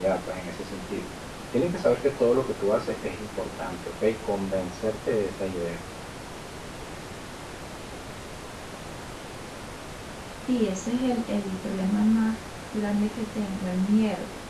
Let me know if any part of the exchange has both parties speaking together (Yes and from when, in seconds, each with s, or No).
No